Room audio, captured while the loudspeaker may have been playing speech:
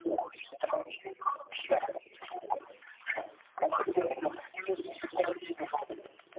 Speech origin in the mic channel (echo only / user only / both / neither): echo only